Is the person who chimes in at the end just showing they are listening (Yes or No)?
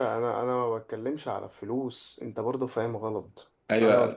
No